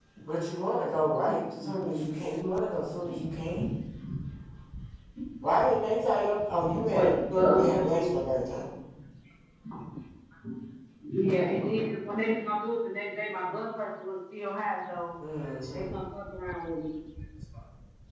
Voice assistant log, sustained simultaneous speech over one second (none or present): present